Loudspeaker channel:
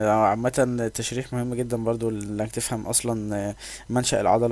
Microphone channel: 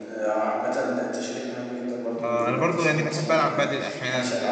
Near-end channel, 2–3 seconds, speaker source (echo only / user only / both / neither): both